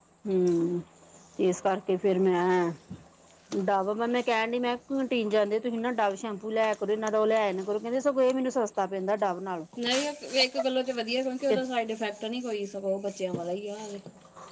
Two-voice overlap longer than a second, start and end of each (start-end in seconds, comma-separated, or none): none